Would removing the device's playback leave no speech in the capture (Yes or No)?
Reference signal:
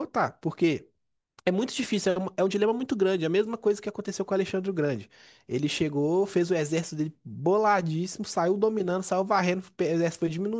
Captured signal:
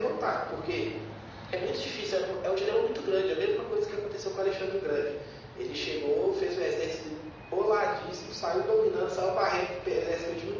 Yes